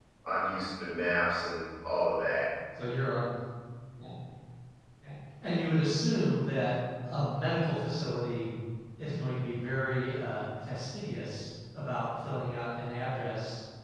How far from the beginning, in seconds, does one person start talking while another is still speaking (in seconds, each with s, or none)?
none